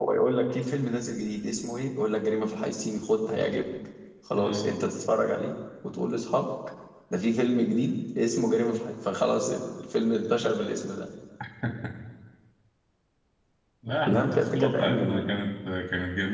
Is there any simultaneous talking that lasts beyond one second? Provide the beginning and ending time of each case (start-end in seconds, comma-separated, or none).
14.1-15.3